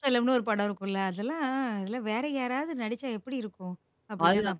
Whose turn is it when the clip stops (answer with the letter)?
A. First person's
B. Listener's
B